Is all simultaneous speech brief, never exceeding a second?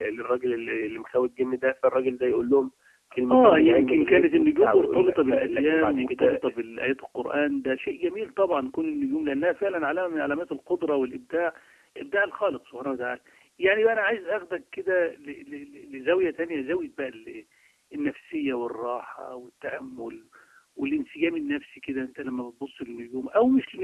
No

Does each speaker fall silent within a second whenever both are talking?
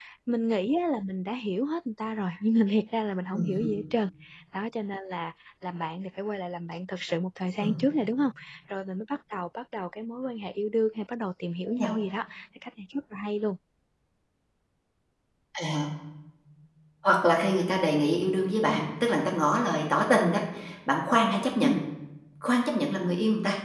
Yes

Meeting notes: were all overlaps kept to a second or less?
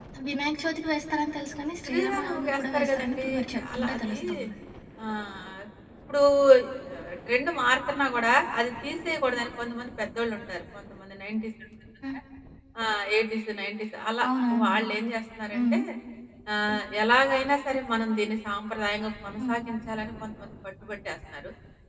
No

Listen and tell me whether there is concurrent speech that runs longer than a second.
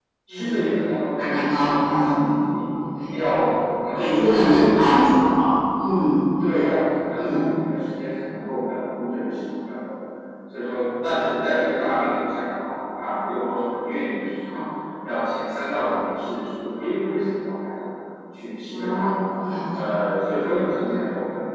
Yes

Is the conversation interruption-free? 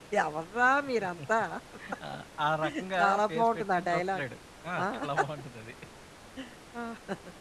No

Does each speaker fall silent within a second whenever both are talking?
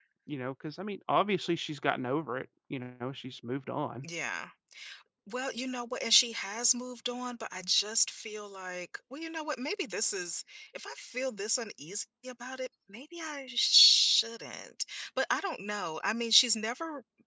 Yes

